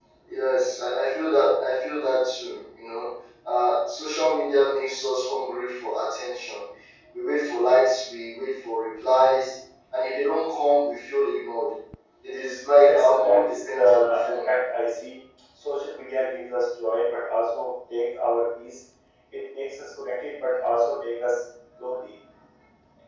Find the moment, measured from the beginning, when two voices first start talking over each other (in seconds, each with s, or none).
12.8 s